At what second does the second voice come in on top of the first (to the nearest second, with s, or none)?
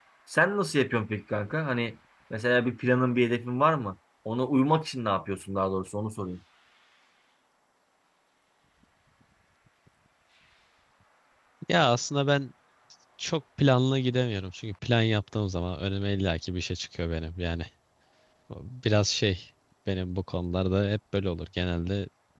none